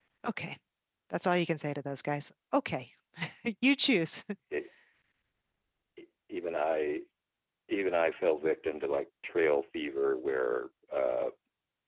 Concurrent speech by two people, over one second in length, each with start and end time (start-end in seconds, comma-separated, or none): none